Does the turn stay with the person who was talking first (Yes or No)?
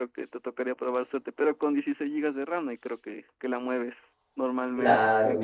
No